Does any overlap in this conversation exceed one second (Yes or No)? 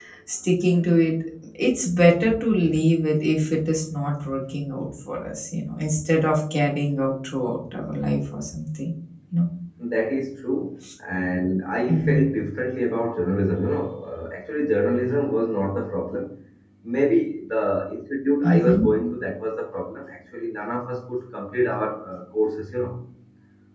No